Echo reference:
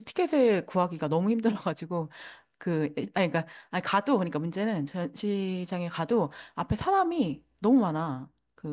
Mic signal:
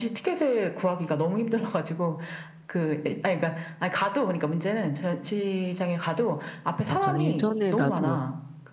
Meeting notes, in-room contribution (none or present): present